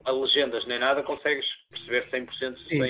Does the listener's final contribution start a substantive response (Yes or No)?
Yes